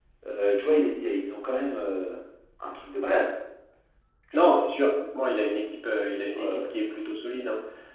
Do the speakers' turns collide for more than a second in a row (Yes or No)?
No